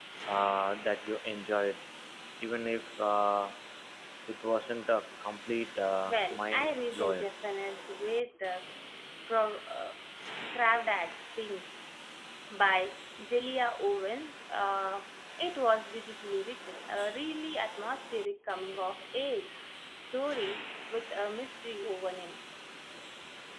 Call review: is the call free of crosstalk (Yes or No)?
No